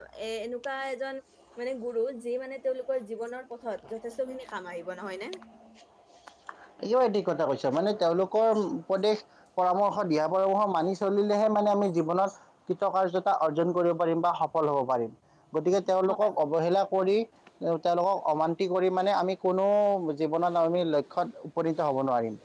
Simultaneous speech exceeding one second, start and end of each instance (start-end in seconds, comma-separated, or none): none